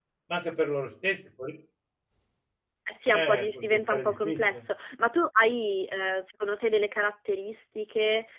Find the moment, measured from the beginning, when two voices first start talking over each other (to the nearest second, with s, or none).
3 s